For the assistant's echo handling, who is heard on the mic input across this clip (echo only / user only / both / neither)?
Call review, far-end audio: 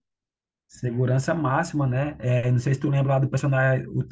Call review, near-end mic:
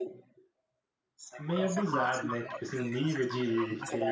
both